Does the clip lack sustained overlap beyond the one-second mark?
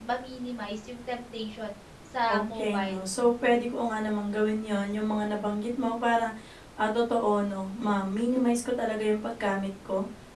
No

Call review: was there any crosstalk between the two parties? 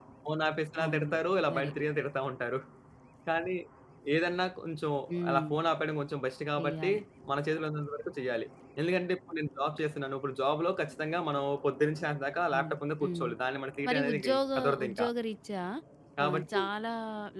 Yes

